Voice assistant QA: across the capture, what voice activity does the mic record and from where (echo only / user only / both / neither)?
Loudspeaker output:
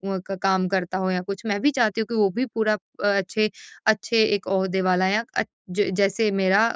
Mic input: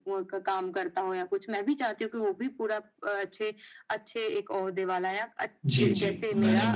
both